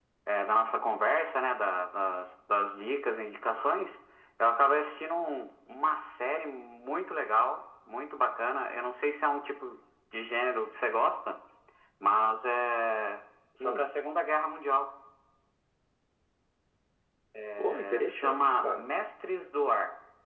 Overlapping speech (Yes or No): Yes